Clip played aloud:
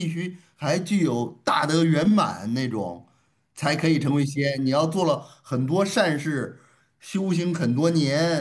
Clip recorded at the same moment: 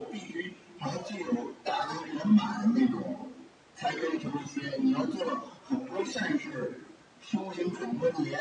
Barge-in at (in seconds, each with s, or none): none